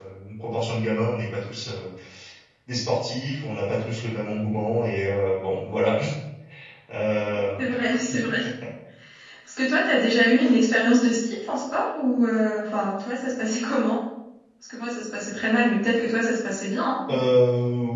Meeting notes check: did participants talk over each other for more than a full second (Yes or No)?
No